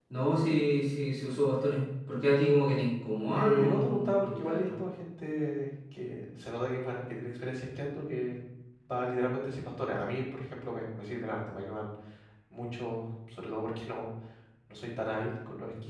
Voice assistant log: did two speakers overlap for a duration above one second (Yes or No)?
Yes